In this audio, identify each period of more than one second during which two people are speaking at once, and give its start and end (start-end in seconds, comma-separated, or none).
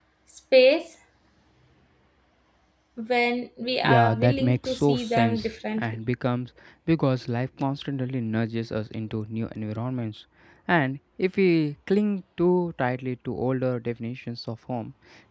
3.8-6.0